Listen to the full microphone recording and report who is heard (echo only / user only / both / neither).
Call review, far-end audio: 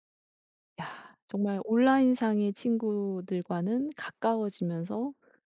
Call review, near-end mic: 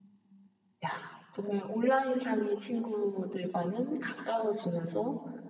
echo only